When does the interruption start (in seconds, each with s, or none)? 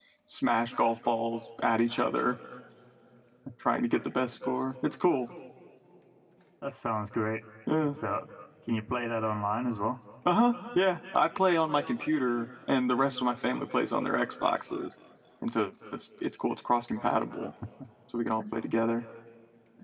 none